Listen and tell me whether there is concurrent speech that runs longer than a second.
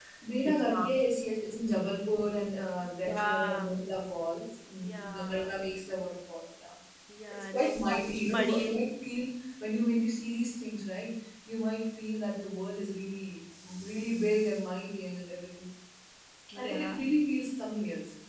Yes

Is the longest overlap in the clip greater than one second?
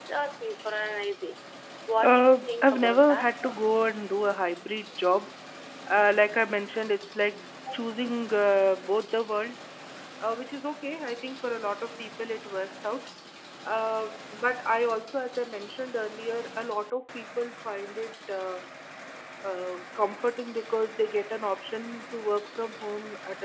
Yes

